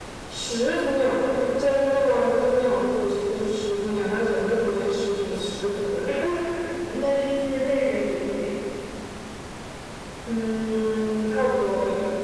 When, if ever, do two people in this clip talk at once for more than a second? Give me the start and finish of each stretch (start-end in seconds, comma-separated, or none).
none